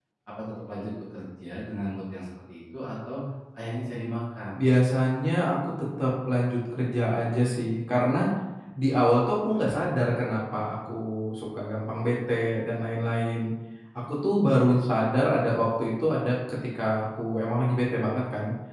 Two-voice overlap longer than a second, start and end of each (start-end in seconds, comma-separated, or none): none